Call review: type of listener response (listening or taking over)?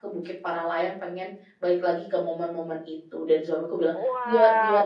taking over